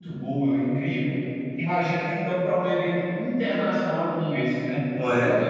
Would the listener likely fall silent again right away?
Yes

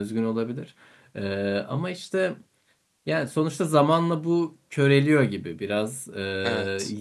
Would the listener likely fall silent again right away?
Yes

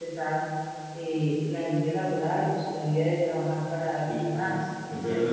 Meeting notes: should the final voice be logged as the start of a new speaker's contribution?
Yes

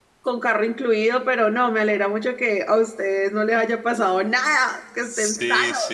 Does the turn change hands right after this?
Yes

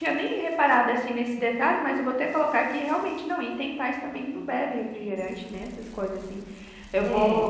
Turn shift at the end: No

